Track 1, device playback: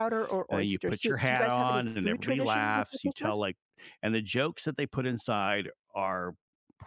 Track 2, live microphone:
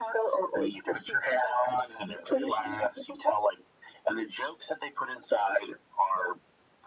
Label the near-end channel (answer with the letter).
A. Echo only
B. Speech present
A